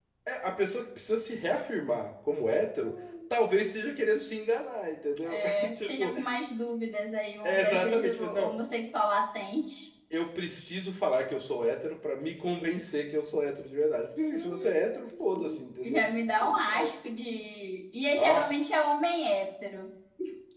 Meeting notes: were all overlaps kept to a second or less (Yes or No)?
No